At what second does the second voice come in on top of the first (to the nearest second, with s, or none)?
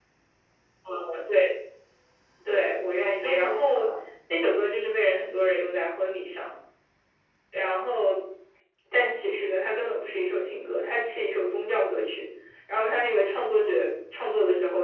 2 s